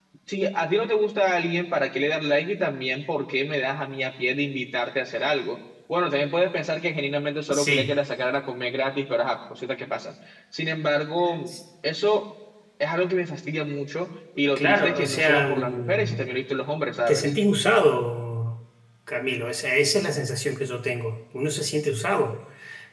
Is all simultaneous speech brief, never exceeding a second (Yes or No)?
No